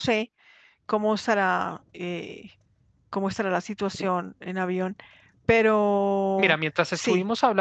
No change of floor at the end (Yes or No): No